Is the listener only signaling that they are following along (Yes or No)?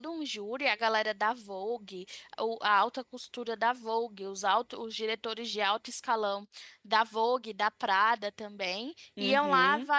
Yes